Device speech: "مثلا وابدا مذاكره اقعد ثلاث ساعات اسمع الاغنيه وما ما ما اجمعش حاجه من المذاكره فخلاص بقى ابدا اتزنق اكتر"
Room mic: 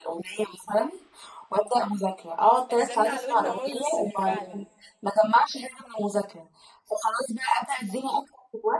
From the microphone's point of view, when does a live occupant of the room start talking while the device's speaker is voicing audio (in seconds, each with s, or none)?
2.7 s